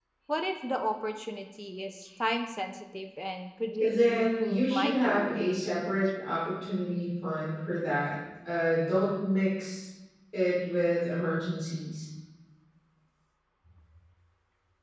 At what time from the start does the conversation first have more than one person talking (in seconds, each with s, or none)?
3.8 s